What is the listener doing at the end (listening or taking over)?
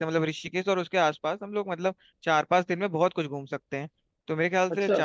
listening